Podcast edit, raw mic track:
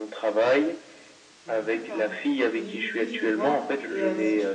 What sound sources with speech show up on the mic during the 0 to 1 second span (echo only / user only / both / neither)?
echo only